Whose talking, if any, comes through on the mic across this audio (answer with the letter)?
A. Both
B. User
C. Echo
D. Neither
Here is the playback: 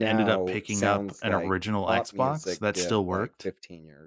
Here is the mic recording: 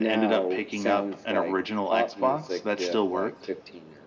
C